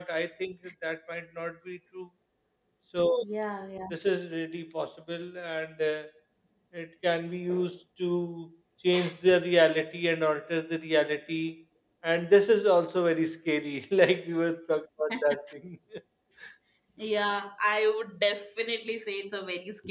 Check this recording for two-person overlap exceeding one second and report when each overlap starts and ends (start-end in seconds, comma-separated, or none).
none